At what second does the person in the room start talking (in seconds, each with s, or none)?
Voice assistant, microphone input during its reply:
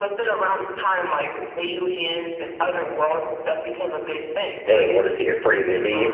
4.7 s